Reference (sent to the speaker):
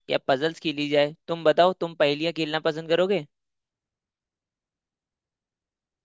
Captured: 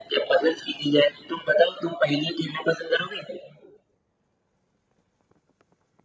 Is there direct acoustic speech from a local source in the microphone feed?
No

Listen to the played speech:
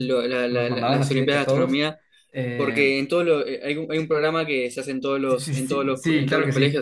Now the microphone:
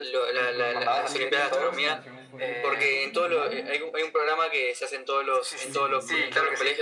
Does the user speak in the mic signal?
Yes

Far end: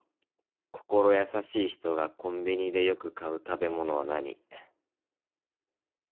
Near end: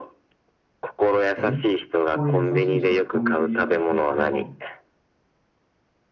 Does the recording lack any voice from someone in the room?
No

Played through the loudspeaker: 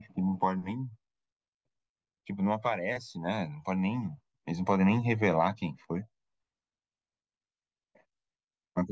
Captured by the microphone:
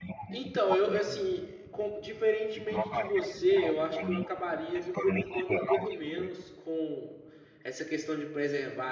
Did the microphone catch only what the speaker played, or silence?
No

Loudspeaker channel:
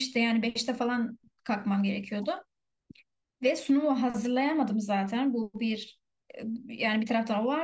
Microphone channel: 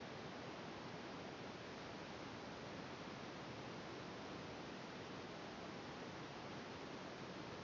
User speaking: No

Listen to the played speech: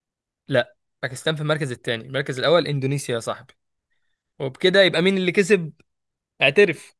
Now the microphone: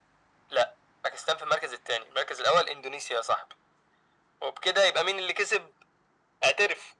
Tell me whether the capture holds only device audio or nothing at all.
Yes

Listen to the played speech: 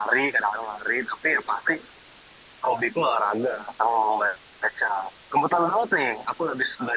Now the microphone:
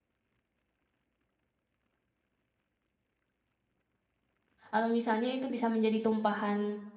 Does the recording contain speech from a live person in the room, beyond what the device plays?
Yes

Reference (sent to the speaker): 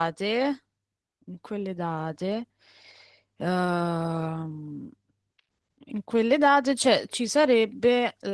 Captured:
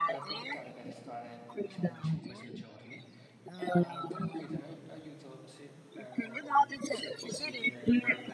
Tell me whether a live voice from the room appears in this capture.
Yes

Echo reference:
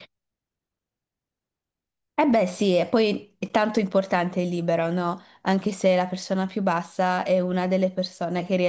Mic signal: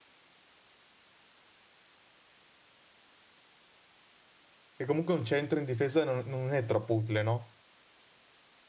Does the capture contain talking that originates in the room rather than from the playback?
Yes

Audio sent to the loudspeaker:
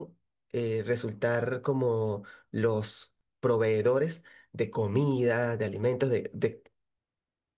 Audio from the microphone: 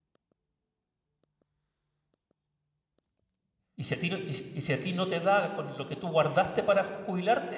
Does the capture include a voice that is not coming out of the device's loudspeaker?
Yes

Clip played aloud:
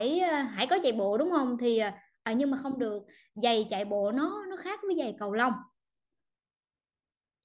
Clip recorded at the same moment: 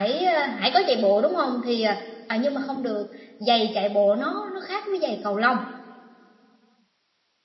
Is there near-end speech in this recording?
No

